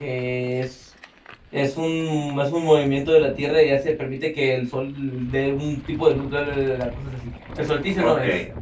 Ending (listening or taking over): taking over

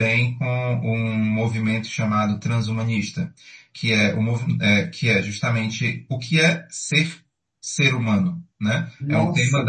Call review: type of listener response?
listening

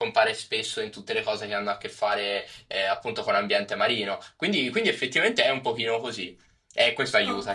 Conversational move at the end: taking over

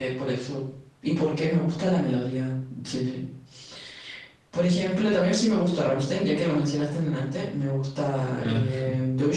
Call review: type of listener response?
listening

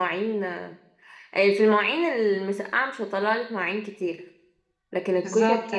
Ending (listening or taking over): listening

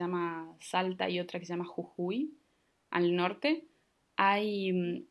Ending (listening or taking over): listening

